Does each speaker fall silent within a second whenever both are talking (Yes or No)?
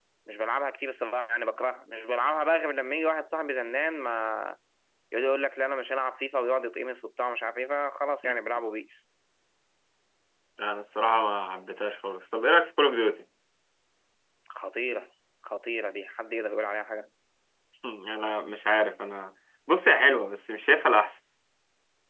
Yes